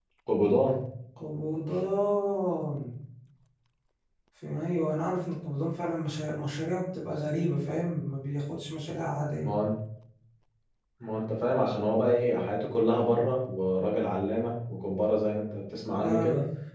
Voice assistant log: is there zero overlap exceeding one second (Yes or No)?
Yes